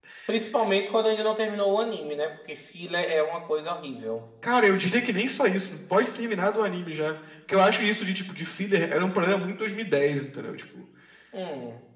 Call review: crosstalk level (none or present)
none